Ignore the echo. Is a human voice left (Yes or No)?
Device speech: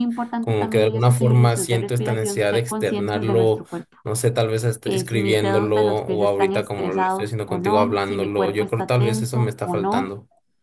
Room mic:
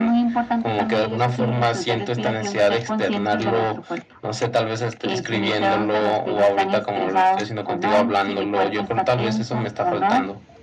No